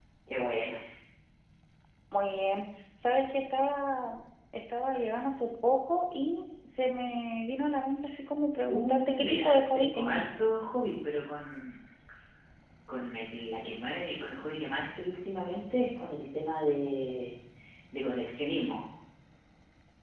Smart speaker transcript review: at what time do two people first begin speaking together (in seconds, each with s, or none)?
8.7 s